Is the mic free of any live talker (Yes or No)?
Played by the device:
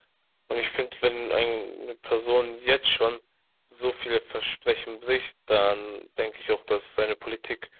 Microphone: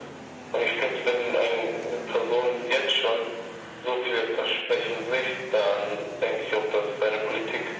Yes